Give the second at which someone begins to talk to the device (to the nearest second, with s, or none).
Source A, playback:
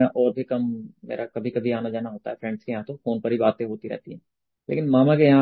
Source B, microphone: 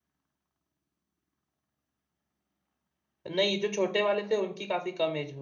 3 s